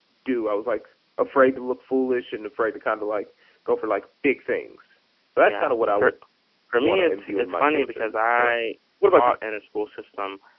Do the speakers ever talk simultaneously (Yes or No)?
Yes